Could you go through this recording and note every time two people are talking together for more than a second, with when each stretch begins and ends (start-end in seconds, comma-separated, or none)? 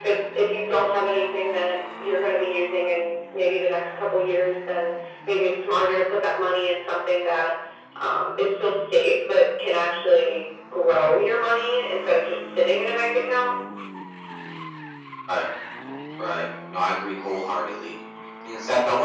none